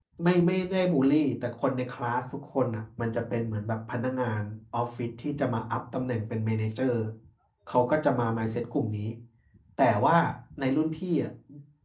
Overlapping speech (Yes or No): No